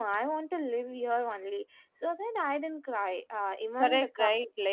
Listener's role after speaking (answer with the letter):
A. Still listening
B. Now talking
B